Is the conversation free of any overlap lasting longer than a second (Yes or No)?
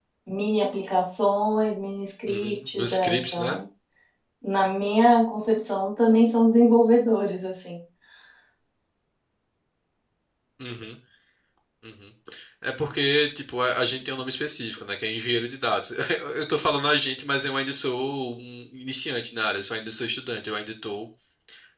No